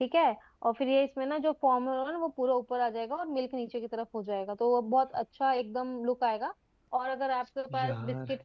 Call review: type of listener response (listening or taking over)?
listening